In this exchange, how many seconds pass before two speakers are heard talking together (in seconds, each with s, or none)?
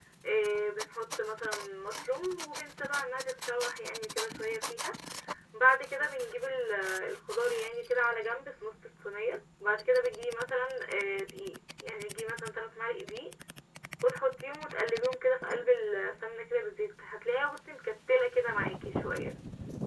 none